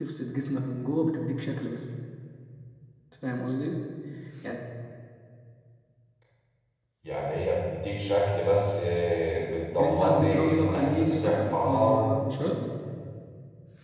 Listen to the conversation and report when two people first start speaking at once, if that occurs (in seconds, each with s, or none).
9.8 s